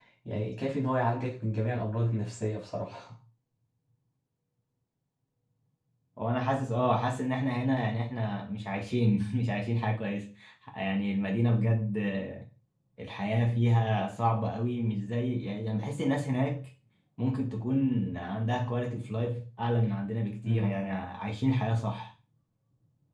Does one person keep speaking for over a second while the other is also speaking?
No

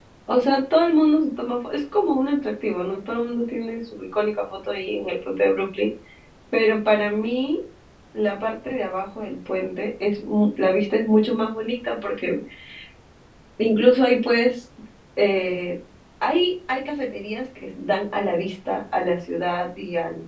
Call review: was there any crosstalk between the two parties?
No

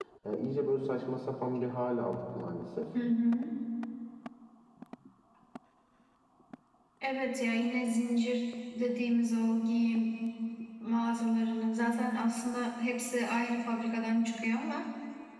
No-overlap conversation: Yes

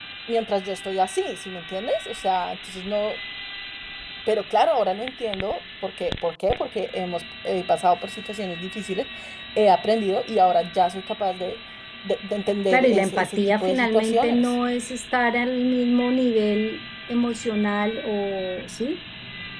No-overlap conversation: No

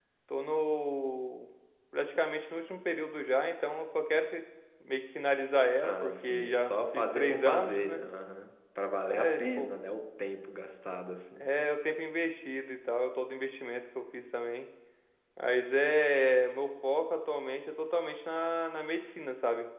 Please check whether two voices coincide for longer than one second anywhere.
Yes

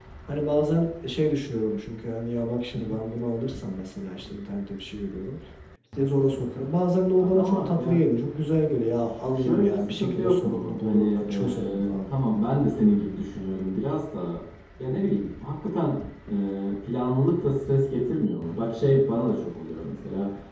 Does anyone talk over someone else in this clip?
Yes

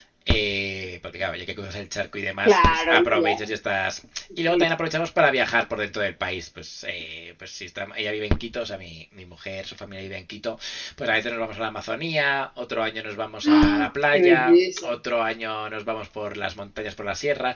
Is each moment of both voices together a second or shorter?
No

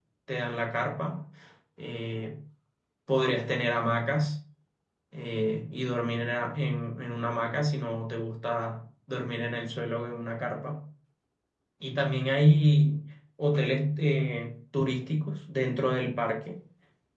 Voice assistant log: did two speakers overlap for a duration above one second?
No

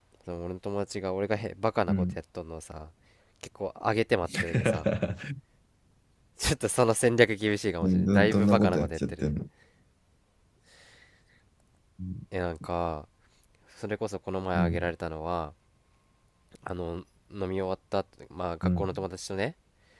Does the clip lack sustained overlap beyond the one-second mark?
No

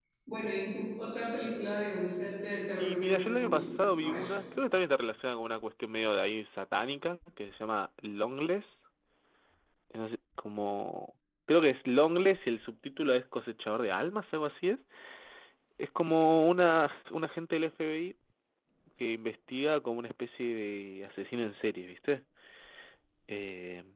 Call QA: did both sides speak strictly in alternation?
No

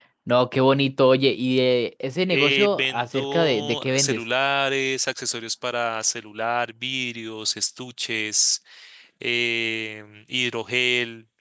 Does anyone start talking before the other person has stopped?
Yes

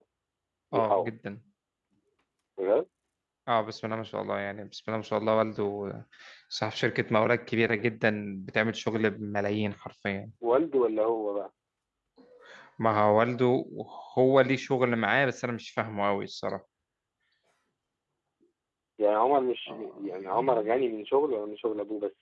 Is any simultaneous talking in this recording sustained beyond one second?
No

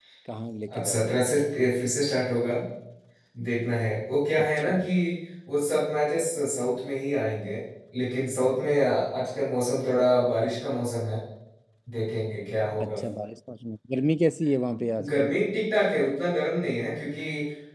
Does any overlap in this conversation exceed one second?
No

